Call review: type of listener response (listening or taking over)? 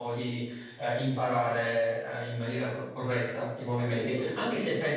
listening